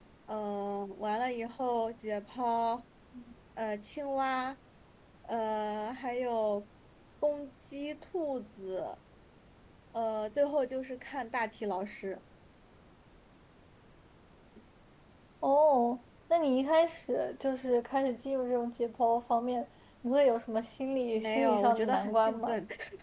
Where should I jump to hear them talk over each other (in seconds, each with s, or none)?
21.1 s